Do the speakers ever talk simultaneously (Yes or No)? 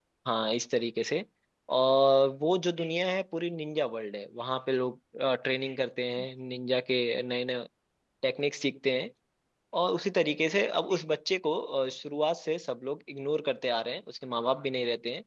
No